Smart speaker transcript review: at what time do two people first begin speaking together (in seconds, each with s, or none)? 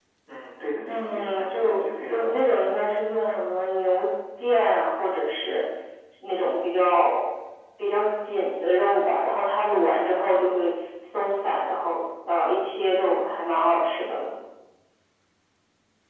0.9 s